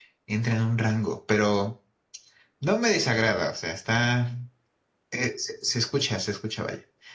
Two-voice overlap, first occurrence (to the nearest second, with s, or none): none